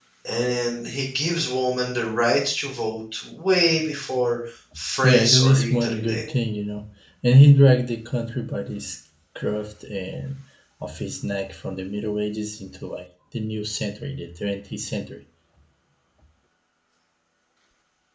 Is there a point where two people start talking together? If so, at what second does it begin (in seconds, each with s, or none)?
5.0 s